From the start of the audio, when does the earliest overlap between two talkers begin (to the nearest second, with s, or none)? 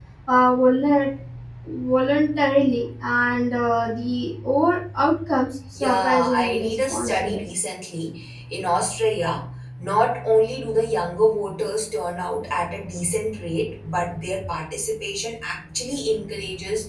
6 s